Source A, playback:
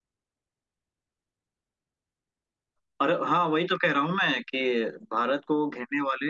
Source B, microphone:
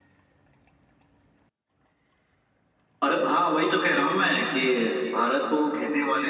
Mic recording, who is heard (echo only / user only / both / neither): echo only